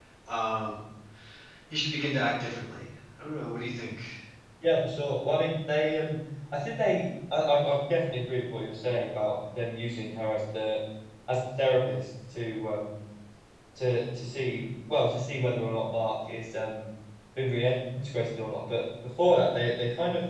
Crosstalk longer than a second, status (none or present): none